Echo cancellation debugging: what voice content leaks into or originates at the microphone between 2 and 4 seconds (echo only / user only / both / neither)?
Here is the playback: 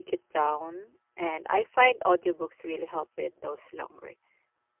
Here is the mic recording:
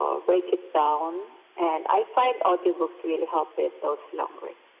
echo only